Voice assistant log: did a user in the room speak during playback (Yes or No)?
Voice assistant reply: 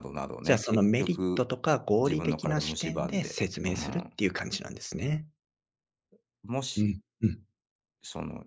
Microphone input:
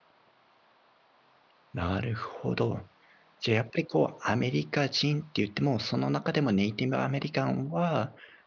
Yes